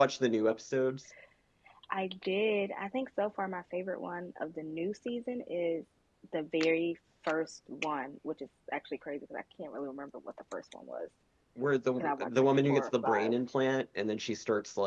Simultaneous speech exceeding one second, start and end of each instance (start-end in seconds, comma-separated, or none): 12.0-13.3